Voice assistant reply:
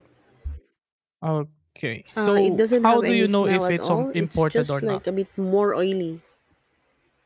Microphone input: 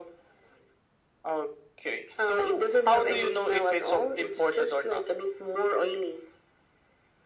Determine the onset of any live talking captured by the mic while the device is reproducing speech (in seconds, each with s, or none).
none